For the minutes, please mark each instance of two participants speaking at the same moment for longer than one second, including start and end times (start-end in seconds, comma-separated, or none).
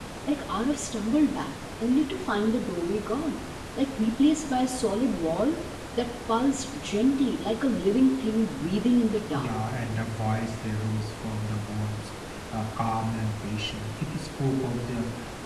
none